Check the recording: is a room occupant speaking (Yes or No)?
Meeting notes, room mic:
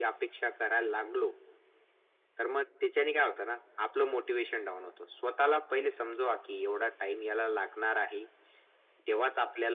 No